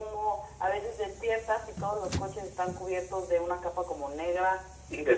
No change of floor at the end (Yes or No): Yes